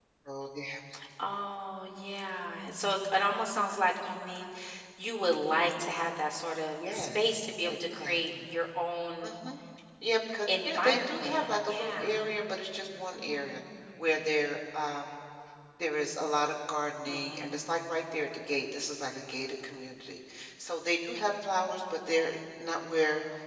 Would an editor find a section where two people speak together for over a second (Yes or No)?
Yes